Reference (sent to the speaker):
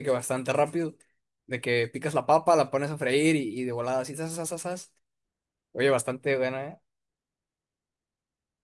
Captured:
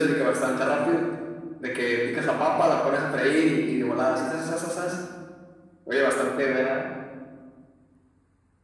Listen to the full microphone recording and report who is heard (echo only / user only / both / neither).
echo only